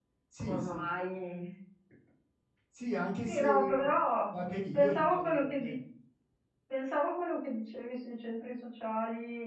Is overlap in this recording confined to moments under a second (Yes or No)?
No